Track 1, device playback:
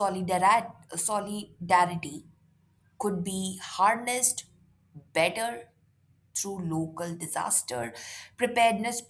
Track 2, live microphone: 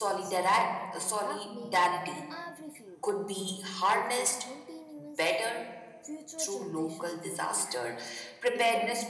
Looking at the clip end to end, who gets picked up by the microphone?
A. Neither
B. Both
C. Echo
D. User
B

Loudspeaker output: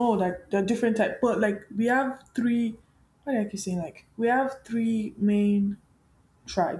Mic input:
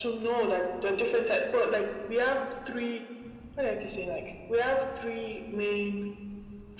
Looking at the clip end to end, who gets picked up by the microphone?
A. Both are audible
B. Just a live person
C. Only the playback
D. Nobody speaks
C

